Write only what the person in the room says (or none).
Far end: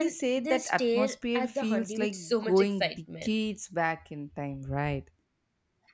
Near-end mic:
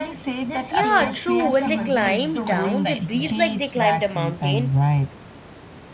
Yeah, true. When they climb down, they breathe like they climbed a mountain.